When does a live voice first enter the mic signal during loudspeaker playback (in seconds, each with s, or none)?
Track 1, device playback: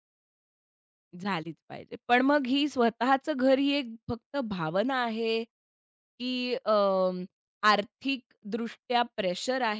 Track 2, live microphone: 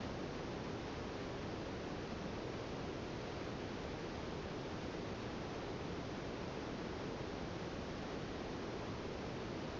none